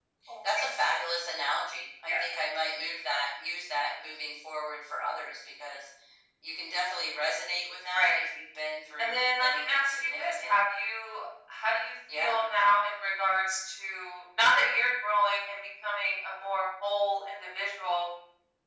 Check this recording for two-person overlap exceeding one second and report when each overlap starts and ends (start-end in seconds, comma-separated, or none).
9.0-10.6